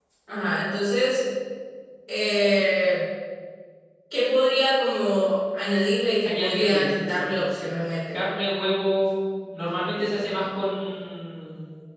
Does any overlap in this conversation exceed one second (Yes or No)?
Yes